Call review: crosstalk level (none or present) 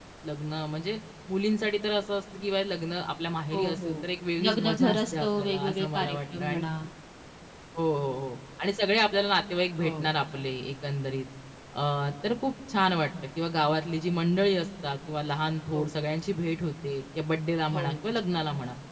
present